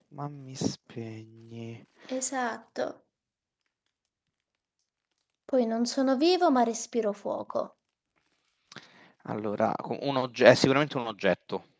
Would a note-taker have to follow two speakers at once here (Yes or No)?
No